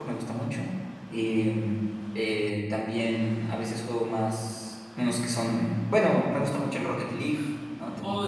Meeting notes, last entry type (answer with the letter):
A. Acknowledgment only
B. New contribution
B